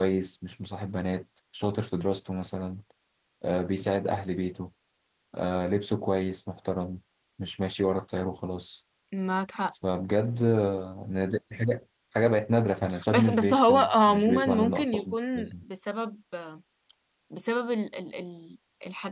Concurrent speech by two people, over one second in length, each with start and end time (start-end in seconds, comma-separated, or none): 13.1-15.5